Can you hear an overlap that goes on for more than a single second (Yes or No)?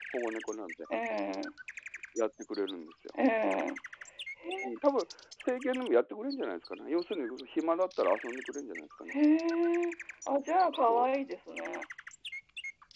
No